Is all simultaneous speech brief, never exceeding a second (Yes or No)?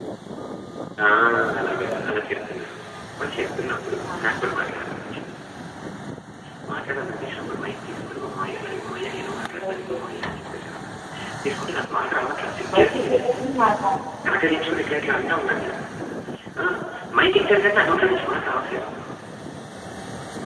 Yes